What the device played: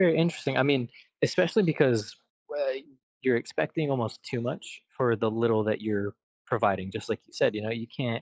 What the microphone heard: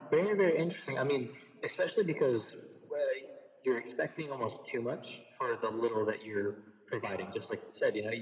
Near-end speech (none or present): none